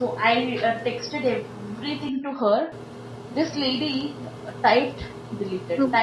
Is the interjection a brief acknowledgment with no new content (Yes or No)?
Yes